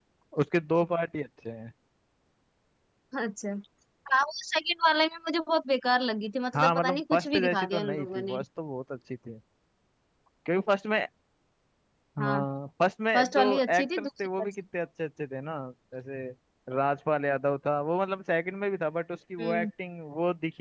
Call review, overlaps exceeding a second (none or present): present